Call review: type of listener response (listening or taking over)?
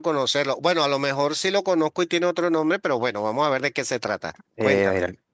taking over